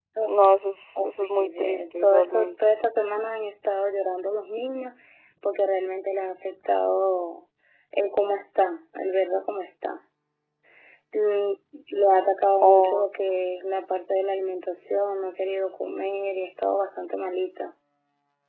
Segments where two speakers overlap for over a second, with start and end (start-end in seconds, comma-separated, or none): 1.1-2.5